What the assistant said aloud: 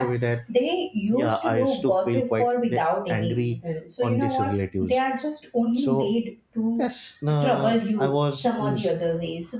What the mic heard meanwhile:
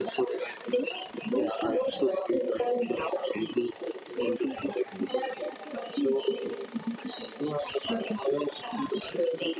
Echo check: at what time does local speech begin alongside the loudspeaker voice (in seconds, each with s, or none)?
none